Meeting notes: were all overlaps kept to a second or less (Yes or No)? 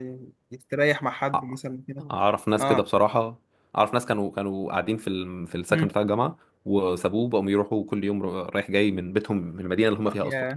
Yes